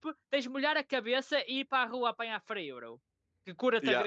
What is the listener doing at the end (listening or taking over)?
taking over